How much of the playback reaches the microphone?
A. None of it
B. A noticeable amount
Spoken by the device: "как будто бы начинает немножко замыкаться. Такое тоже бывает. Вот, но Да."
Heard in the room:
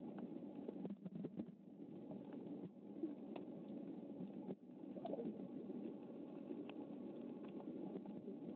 A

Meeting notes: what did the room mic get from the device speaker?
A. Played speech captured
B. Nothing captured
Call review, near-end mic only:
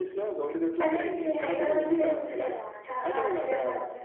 A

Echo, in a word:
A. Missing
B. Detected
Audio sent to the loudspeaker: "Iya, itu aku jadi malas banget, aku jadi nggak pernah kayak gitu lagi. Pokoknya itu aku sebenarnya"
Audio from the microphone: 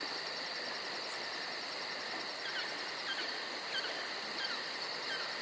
A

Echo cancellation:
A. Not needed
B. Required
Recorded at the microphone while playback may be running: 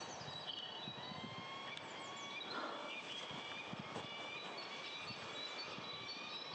A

